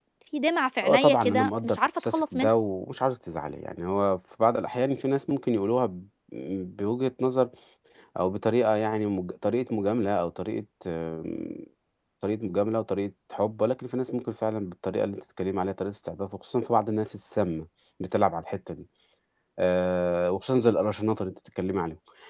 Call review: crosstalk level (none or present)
present